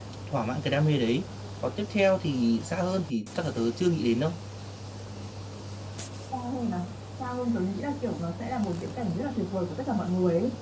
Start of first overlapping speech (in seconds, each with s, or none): none